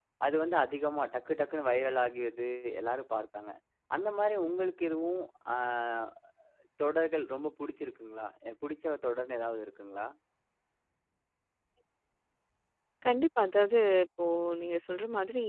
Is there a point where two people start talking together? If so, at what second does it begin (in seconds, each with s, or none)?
none